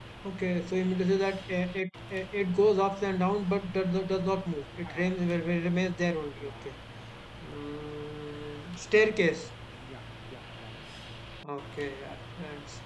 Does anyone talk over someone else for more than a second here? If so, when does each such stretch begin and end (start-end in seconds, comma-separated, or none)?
none